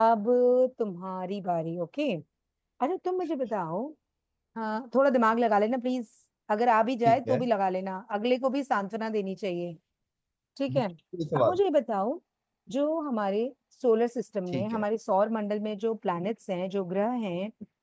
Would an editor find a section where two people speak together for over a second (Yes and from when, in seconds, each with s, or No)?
No